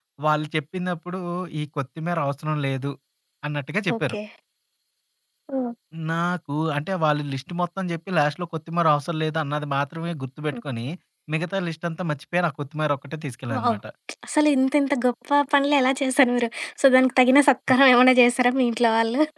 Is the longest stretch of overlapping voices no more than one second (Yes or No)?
Yes